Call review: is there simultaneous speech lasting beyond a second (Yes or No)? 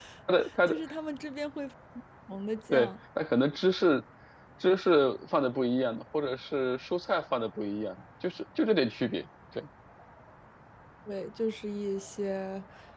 No